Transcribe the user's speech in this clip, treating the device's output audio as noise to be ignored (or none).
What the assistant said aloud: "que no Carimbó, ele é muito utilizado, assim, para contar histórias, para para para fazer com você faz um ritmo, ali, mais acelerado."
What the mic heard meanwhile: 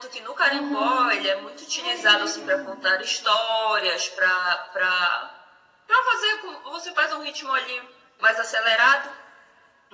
Aham. Olha, que legal.